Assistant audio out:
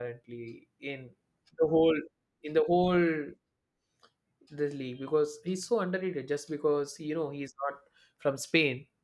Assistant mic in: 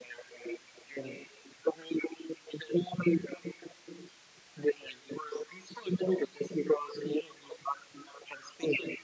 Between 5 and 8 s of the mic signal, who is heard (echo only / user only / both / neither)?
echo only